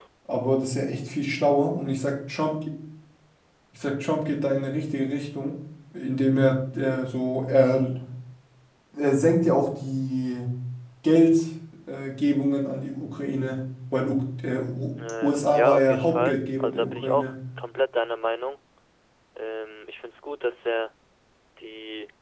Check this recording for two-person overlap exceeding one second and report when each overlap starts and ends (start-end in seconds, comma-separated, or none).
15.2-17.3